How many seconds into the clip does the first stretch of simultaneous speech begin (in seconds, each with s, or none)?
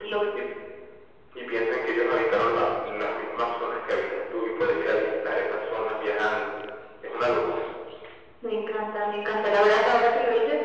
none